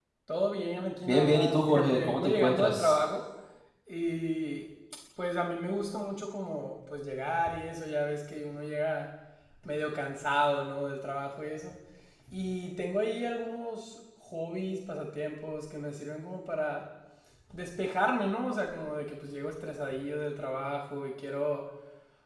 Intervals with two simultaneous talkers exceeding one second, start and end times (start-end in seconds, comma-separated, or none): 1.0-3.0